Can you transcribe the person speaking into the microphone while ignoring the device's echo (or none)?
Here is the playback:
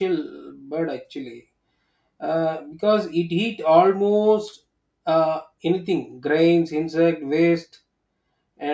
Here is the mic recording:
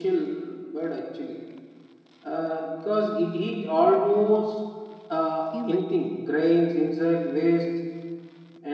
human